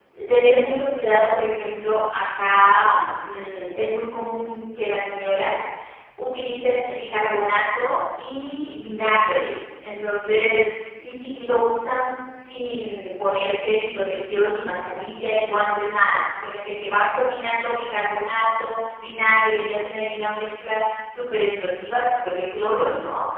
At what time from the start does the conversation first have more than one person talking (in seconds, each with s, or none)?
none